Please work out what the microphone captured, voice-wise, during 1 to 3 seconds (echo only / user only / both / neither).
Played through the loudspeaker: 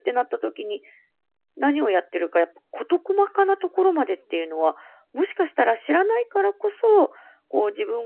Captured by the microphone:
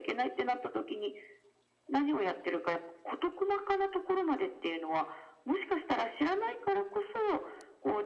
echo only